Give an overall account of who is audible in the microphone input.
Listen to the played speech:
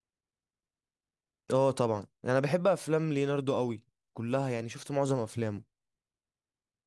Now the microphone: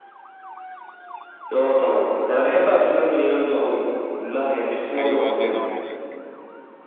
both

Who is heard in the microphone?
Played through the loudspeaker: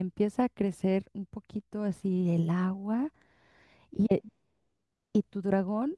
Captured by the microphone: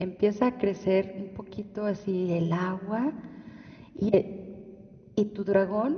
echo only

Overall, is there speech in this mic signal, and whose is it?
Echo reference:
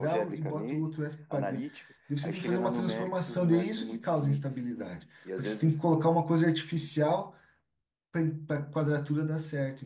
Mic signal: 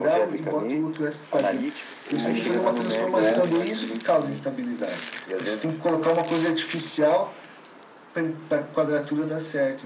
both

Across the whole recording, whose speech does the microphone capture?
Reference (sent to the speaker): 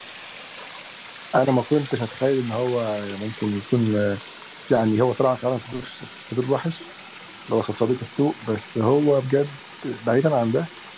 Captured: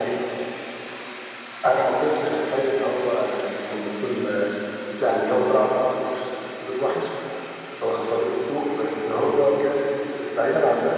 echo only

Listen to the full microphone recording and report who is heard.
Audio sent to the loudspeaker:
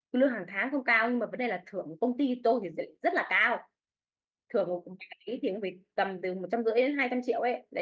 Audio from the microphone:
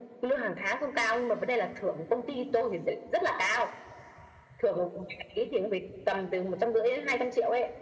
echo only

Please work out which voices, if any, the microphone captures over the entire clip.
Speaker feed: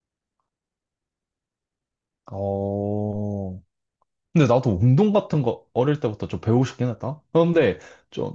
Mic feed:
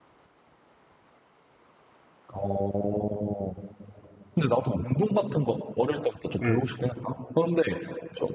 both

